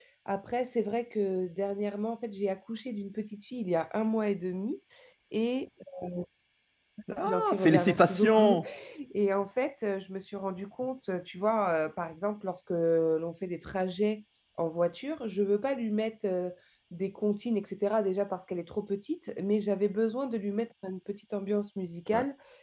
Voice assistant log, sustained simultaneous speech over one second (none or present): present